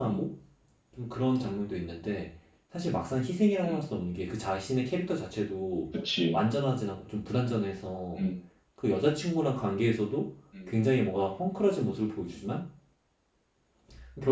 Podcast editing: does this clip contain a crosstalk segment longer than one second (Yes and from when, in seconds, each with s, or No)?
No